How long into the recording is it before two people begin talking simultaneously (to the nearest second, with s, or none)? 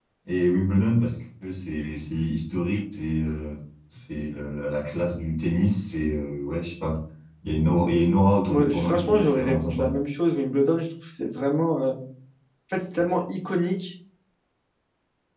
8 s